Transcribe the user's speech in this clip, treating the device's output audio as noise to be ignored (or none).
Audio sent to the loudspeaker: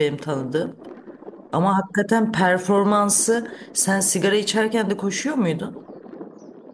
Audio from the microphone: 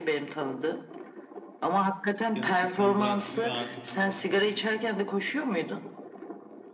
gerçekten bıraktım ve artık